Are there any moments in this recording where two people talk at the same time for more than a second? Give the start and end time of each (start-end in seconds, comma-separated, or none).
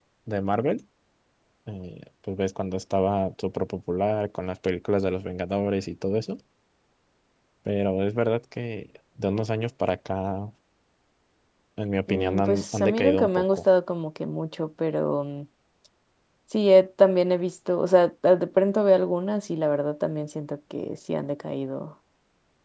12.1-13.7